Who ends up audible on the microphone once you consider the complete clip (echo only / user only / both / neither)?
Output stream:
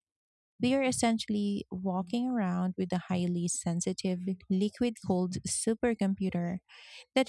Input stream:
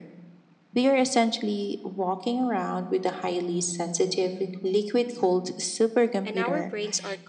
both